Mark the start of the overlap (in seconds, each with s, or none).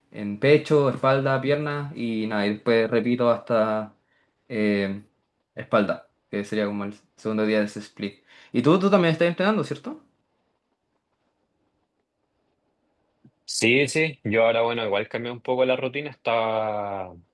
none